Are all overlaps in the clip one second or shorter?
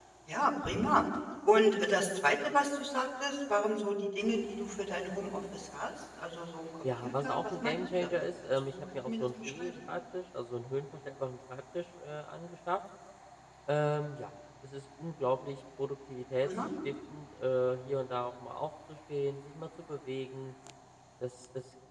No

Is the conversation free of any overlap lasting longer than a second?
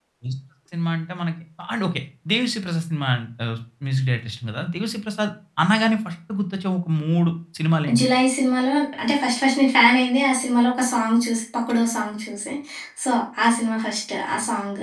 Yes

